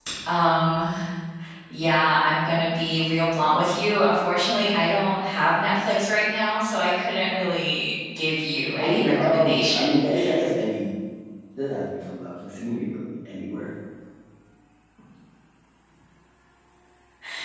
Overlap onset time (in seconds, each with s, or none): 8.8 s